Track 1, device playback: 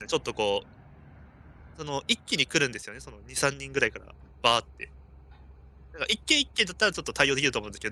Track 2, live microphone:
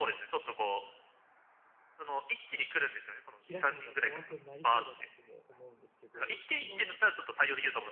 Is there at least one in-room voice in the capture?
Yes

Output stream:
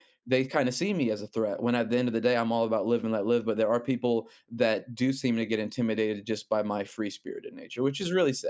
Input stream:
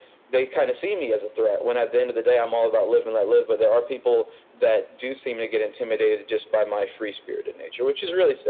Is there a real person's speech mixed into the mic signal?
No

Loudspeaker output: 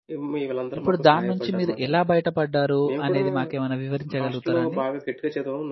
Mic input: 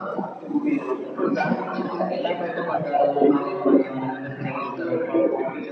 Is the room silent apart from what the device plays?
Yes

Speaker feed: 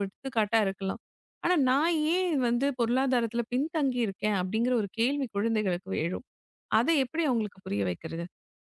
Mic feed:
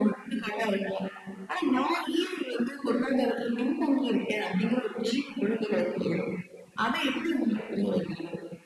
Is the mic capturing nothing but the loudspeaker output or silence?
Yes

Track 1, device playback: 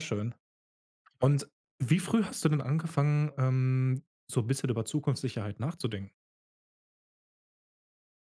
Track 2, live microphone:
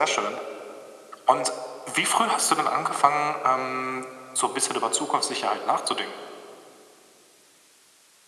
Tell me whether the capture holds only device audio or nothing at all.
Yes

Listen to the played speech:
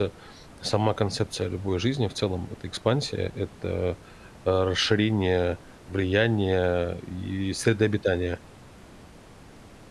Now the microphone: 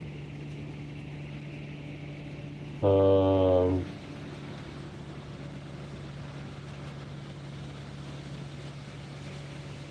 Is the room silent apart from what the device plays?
No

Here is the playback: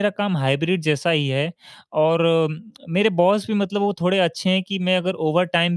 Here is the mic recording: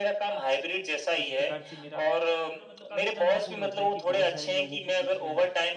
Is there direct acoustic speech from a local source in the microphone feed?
Yes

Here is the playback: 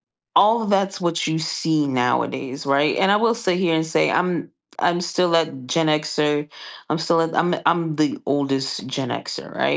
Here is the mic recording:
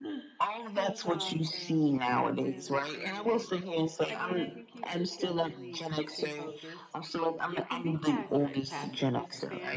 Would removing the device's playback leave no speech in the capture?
No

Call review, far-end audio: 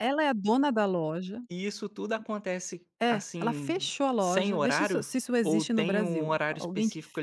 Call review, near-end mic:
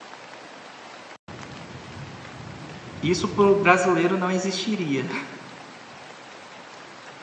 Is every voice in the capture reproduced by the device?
No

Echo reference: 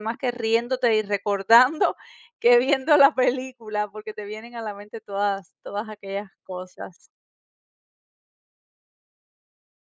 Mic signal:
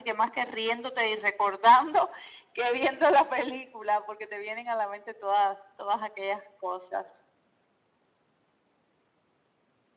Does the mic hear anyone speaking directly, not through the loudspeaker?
No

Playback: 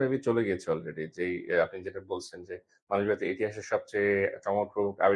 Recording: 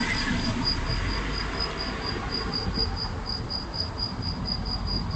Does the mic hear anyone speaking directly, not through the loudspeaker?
No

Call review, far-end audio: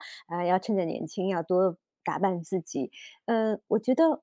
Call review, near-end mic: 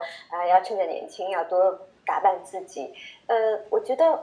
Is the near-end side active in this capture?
No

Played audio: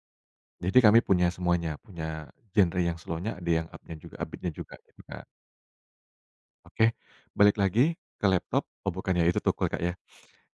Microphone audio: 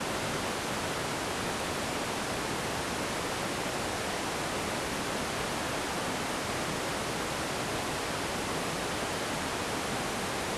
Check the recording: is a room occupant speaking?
No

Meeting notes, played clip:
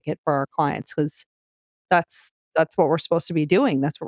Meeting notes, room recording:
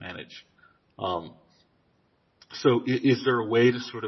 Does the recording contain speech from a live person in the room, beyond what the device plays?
Yes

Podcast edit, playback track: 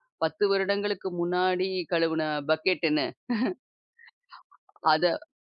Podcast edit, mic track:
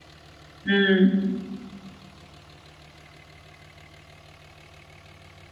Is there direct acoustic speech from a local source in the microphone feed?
Yes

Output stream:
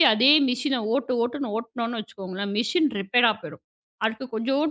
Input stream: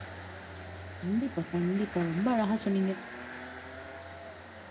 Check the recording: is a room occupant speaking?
Yes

